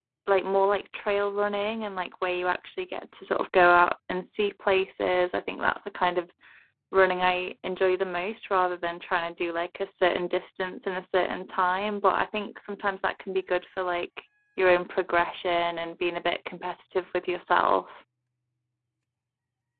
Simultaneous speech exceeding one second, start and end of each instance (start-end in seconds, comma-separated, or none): none